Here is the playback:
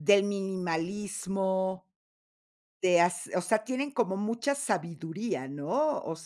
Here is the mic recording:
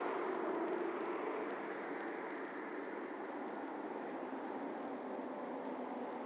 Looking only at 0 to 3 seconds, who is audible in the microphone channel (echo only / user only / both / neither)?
neither